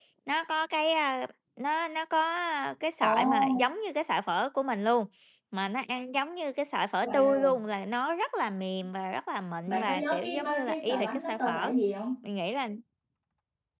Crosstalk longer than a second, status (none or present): present